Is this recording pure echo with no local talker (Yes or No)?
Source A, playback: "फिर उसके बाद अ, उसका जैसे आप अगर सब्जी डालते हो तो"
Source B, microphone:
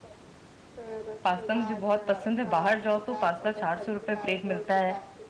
No